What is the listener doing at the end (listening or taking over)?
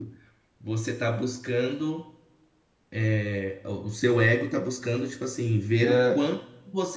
listening